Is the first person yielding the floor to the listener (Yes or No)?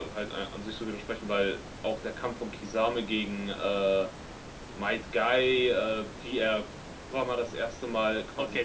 Yes